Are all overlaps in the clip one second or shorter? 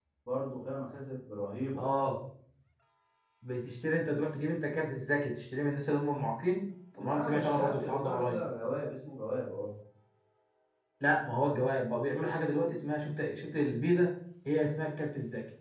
No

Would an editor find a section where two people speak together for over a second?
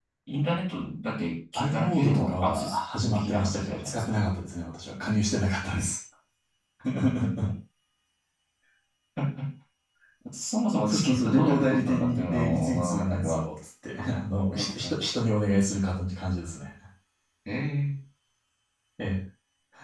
Yes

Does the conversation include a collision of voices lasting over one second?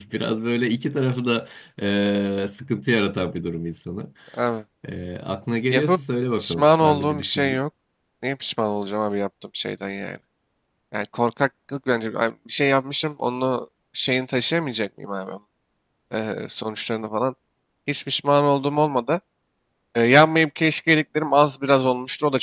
Yes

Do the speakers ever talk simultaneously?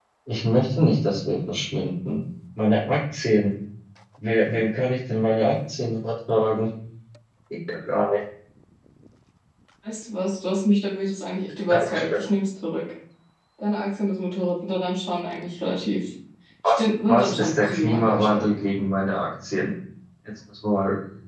Yes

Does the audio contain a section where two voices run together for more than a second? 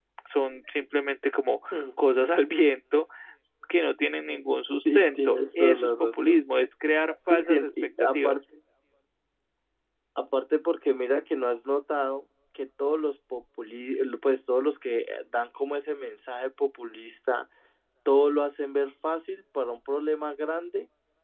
Yes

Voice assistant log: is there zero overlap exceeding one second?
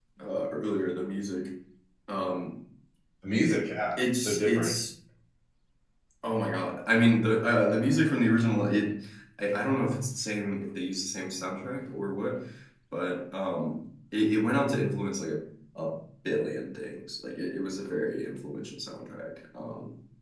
No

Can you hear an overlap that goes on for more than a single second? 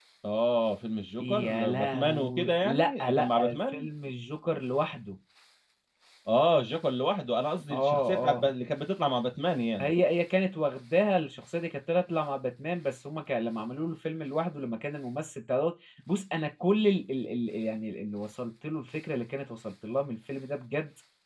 Yes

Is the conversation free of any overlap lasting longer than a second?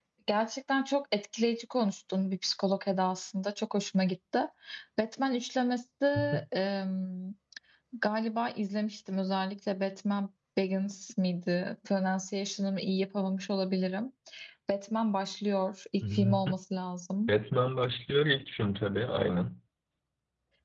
Yes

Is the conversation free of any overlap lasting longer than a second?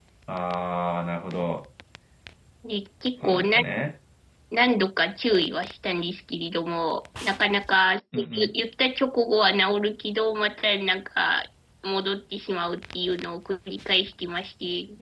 Yes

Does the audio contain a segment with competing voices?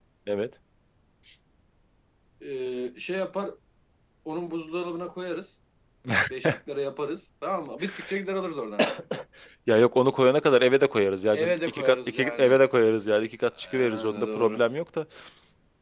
Yes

